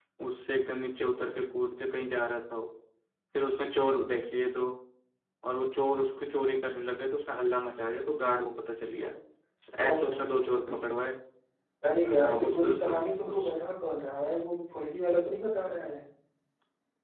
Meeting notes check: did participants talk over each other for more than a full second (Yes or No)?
Yes